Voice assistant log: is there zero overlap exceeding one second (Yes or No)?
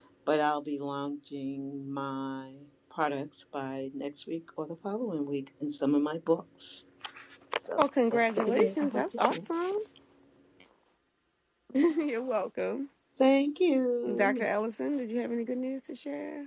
No